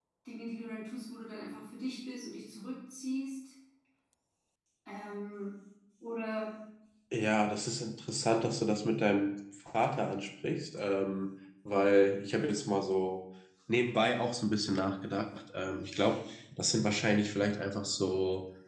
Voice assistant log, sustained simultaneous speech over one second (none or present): none